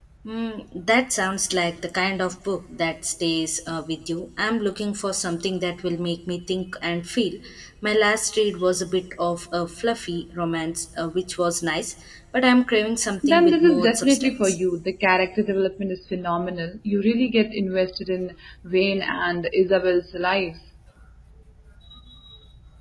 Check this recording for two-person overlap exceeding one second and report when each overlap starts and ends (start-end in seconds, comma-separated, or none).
13.2-14.6